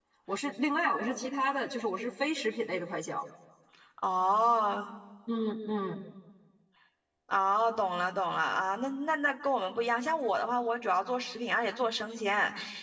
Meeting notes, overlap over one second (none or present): none